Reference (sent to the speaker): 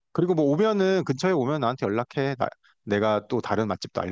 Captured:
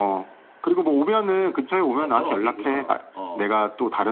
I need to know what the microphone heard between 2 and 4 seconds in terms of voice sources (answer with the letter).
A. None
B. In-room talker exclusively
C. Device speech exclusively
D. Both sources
D